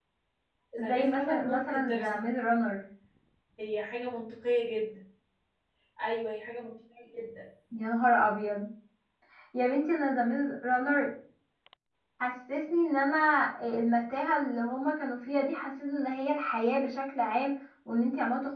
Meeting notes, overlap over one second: present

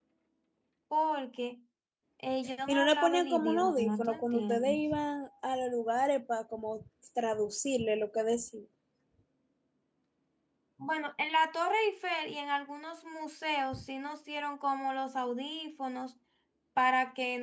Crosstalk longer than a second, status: present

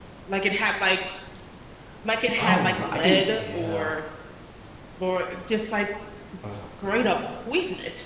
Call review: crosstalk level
present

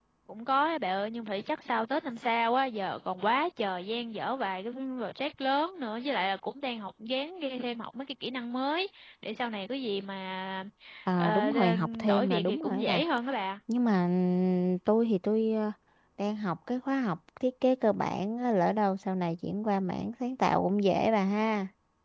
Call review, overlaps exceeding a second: present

